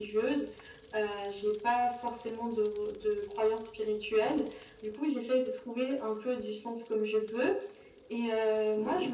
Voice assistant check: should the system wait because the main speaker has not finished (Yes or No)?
Yes